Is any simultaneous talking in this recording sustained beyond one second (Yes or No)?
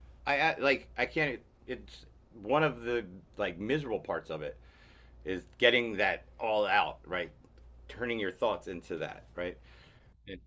No